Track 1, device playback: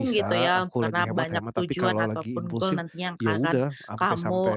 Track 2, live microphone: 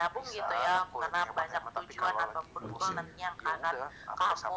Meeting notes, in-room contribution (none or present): present